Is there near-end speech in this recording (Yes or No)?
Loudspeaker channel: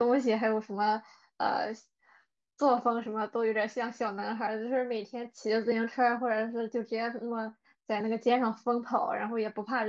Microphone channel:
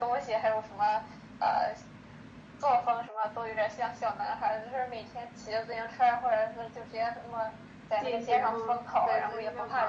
Yes